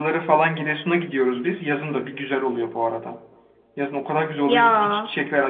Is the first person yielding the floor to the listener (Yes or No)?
No